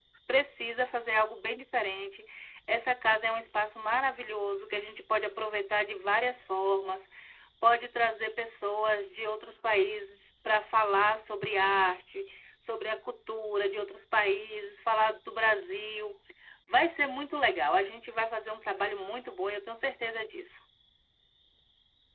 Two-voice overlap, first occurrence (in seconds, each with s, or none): none